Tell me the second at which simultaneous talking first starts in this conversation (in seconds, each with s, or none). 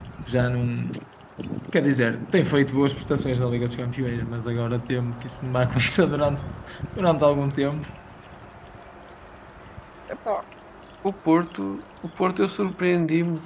none